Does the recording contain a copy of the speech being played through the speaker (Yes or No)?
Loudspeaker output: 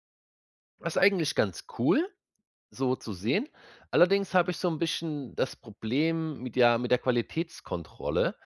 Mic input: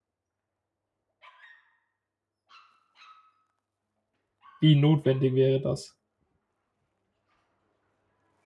No